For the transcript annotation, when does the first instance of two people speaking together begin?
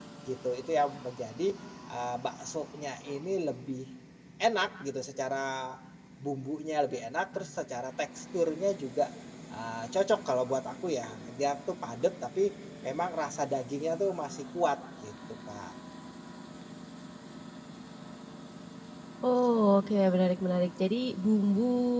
none

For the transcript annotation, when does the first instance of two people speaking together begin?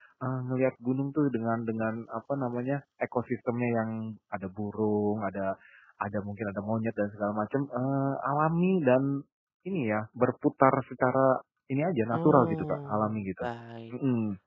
12 s

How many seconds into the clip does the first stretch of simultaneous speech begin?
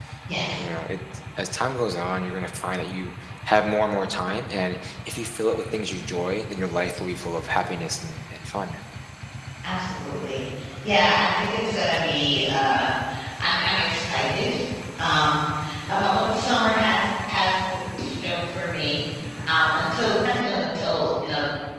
none

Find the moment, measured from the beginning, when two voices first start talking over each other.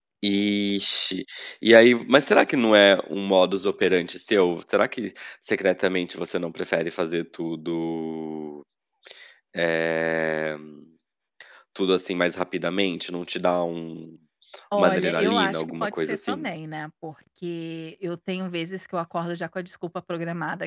15 s

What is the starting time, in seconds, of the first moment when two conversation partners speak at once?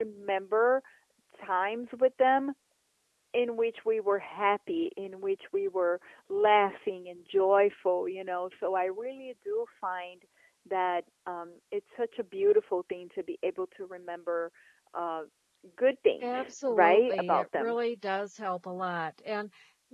16 s

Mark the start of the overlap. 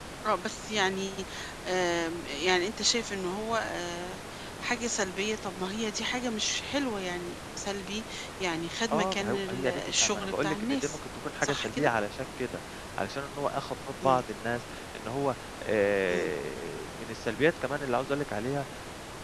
9 s

